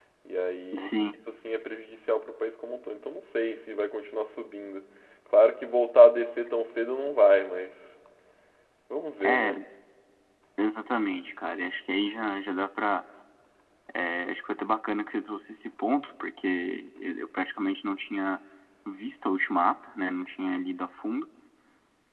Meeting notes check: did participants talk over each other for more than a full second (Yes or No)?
No